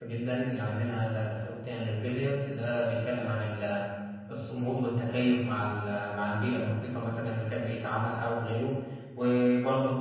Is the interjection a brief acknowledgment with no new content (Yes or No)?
Yes